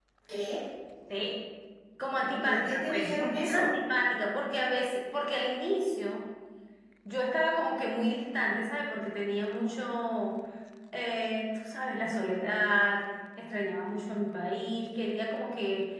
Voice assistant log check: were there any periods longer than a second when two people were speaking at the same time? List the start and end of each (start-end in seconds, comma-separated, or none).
2.5-3.7